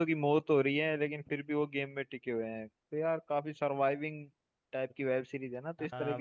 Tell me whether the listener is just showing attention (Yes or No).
No